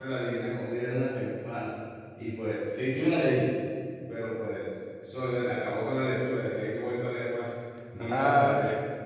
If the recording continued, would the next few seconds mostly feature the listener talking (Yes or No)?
Yes